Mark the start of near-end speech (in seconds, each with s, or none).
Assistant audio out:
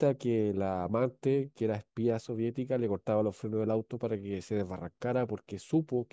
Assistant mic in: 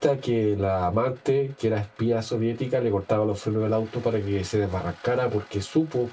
none